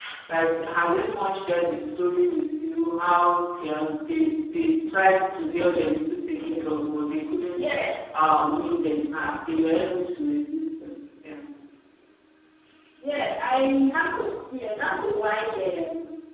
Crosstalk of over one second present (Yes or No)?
No